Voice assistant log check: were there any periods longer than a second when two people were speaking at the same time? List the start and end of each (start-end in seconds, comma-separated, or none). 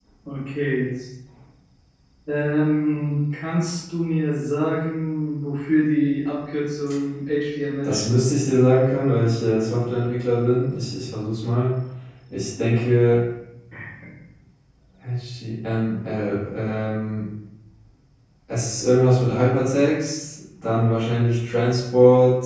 none